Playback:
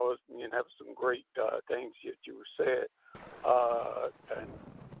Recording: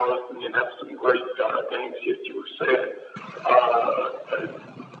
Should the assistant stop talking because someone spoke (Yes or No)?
No